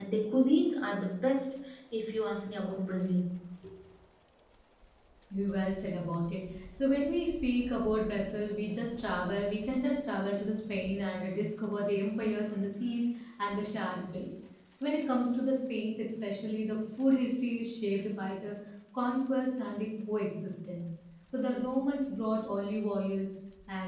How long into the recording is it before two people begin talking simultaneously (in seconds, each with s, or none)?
none